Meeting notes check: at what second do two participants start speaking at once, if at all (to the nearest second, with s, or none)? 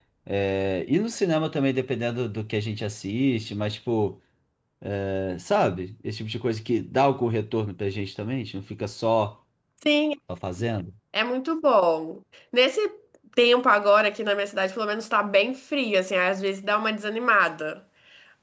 none